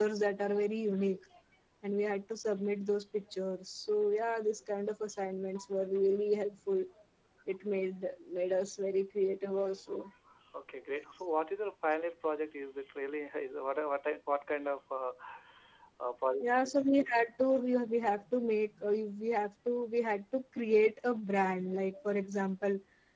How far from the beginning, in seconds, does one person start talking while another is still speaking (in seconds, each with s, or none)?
none